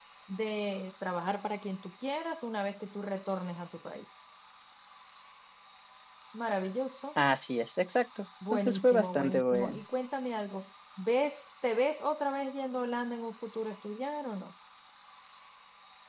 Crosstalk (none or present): present